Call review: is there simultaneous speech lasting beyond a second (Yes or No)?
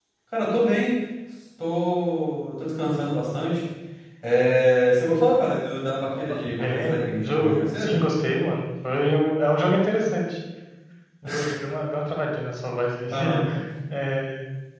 Yes